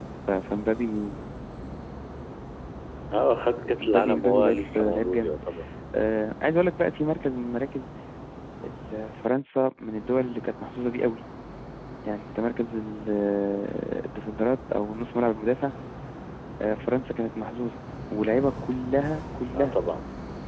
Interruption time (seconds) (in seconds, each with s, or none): 3.8 s